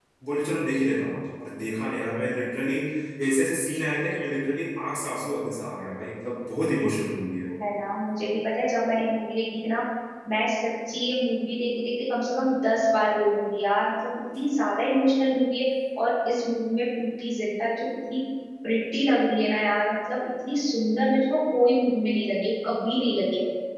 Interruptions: none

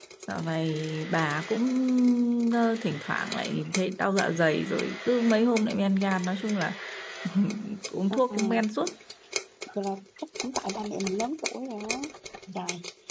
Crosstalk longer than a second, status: none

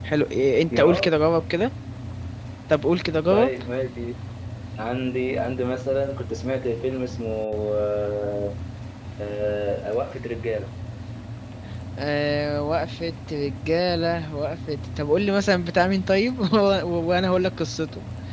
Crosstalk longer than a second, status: none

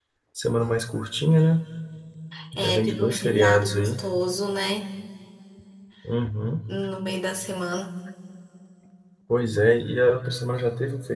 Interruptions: present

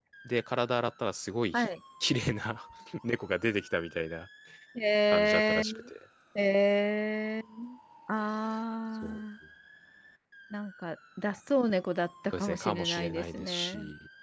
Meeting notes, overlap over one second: present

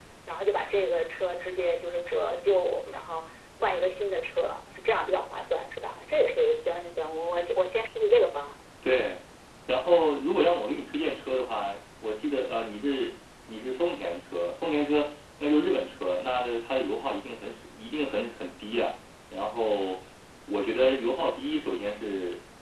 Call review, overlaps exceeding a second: none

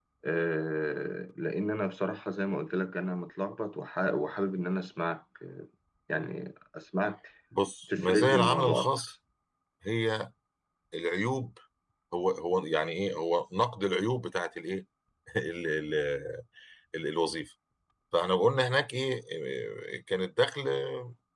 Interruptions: present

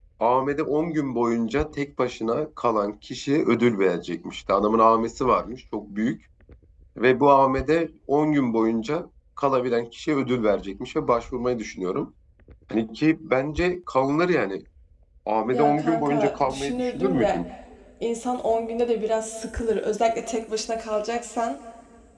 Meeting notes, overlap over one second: present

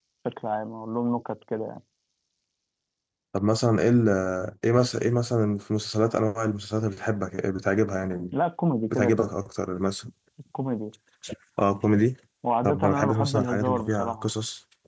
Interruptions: present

